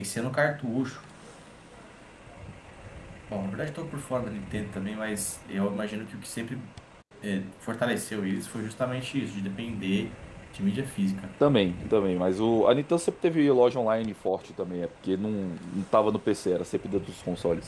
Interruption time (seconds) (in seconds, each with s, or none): none